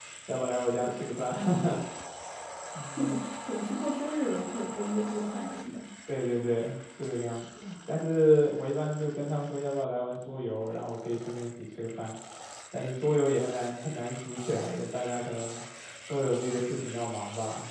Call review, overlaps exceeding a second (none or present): none